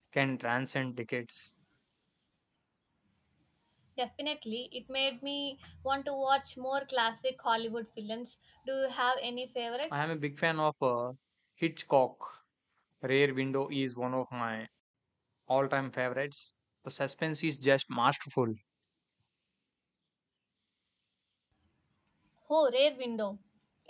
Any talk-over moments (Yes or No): No